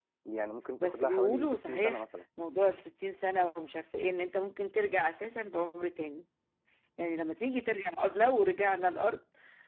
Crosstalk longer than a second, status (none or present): present